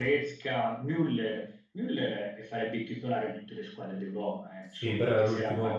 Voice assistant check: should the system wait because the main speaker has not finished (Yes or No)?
No